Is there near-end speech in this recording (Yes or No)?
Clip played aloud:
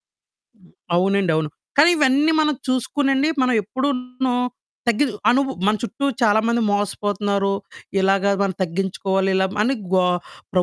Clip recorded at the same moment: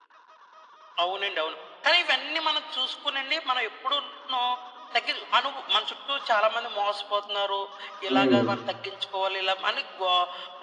Yes